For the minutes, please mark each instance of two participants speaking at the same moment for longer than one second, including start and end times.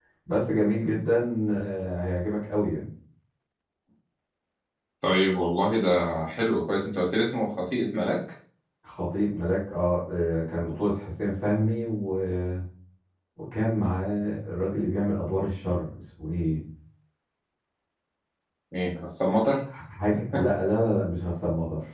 none

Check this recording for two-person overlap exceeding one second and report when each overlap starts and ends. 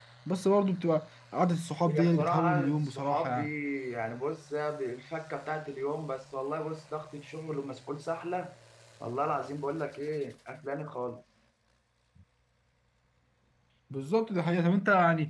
1.9-3.4

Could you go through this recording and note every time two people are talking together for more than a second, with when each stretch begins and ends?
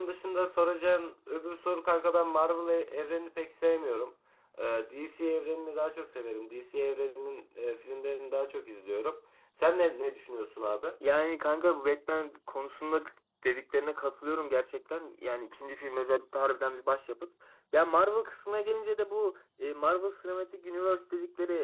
none

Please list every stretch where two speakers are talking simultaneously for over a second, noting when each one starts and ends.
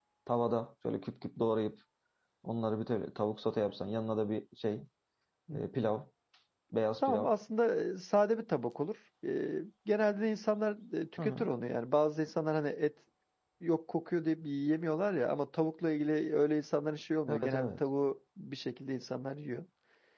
none

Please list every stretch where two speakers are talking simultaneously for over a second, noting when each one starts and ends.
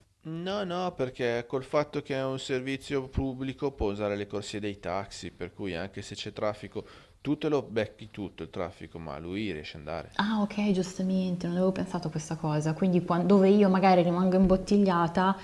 none

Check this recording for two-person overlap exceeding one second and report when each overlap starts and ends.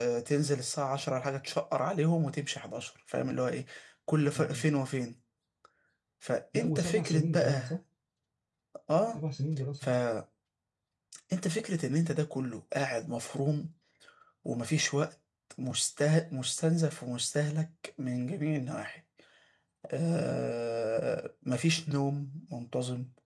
6.5-7.7

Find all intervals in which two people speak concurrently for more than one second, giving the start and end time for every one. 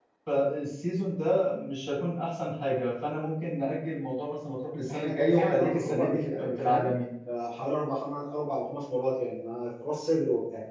4.9-6.9

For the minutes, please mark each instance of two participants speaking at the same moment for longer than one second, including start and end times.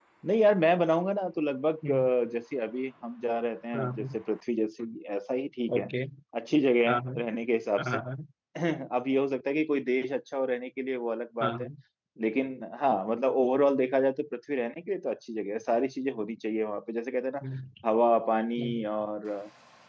none

